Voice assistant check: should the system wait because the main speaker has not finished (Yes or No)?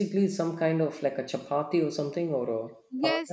No